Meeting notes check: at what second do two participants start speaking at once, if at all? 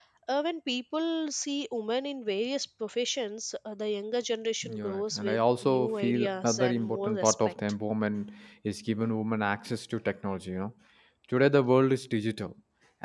4.6 s

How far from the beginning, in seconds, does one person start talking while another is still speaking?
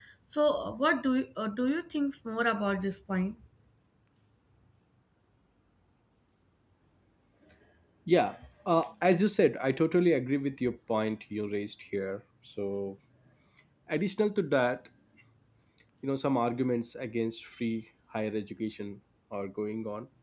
none

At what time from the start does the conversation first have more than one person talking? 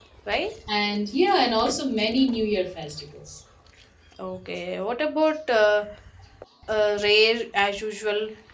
none

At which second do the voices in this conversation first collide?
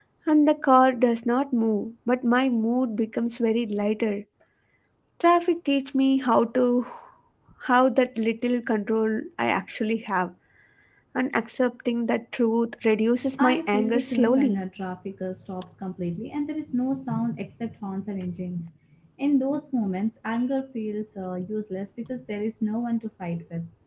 13.4 s

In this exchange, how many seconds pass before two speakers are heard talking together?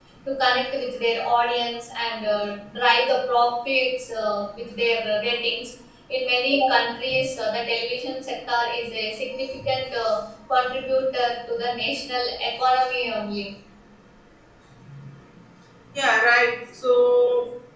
none

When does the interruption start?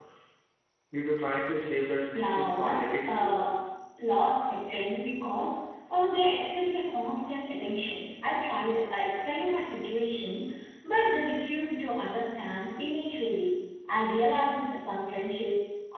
2.1 s

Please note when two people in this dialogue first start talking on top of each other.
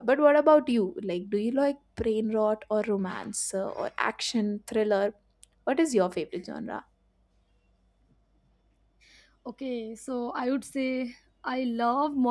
none

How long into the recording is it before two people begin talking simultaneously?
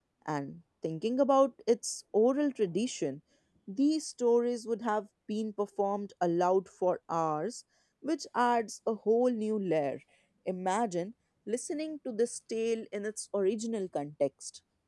none

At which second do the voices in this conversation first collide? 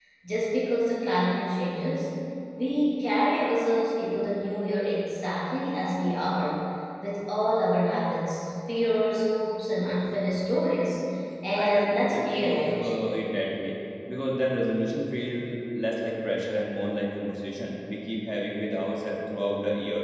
11.6 s

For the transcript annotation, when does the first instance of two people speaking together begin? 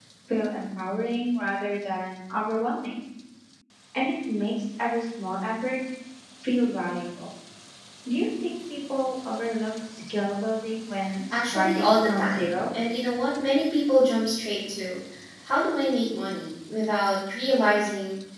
11.3 s

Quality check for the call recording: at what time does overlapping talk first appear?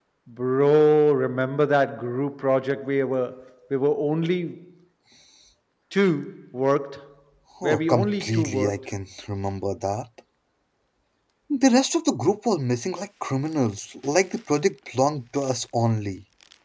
7.6 s

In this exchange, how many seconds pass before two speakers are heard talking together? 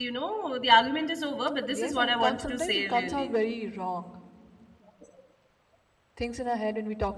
1.7 s

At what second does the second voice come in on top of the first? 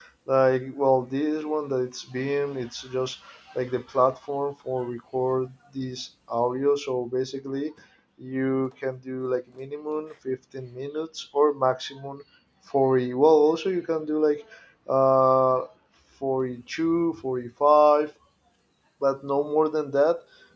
none

